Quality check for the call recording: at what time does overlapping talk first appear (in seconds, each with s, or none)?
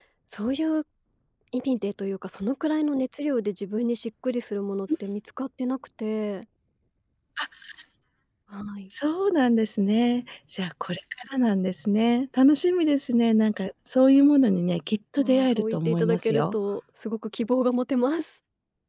15.2 s